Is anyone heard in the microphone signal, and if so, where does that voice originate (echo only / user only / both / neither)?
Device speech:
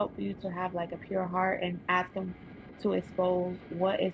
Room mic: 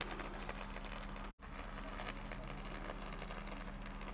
neither